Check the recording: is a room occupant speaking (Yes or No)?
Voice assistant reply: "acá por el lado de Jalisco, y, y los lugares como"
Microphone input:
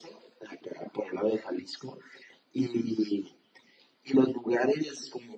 No